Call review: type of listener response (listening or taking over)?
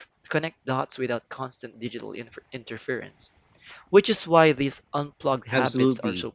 taking over